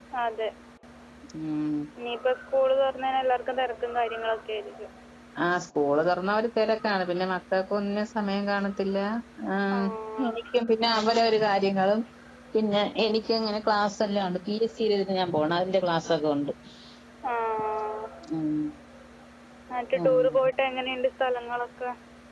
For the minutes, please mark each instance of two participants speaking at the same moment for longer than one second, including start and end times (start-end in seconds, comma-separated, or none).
none